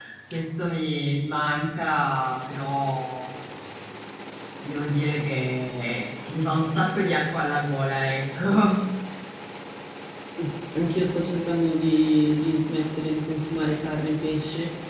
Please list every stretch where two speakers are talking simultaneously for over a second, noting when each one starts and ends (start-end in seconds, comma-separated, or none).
none